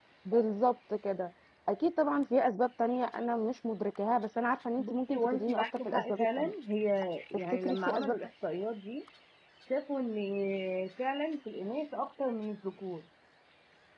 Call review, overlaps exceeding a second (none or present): present